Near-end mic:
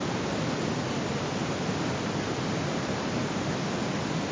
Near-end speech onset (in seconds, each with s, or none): none